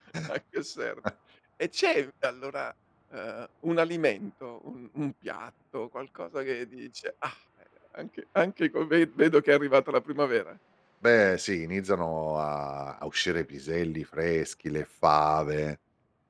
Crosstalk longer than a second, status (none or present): none